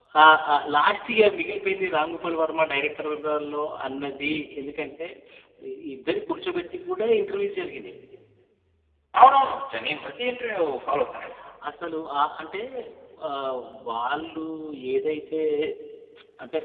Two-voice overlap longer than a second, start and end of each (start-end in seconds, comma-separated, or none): none